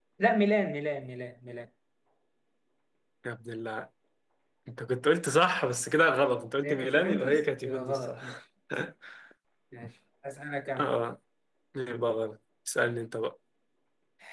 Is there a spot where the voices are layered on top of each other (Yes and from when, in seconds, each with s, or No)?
Yes, from 6.6 s